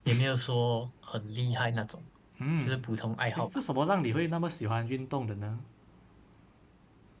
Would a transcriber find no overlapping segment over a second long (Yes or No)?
Yes